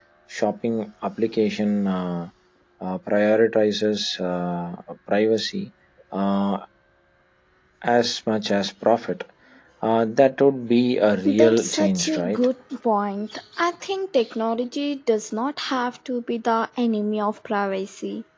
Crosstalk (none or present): present